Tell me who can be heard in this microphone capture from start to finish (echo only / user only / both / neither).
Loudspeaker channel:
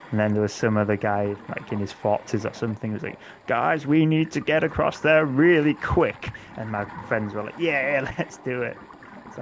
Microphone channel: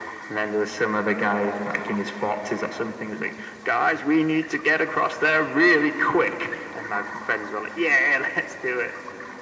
echo only